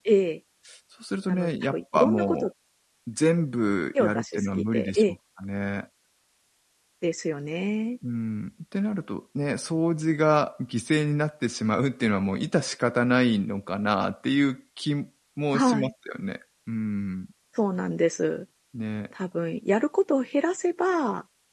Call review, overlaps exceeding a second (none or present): present